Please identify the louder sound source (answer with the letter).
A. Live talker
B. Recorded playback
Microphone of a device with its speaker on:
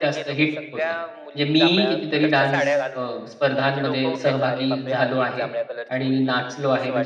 A